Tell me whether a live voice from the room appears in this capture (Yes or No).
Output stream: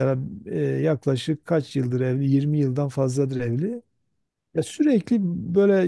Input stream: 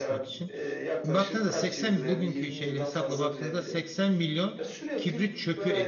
Yes